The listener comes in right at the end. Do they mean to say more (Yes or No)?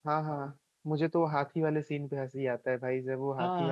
Yes